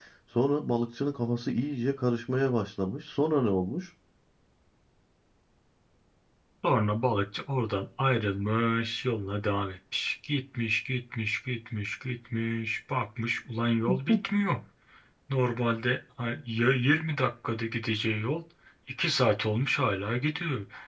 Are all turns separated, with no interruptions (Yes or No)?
Yes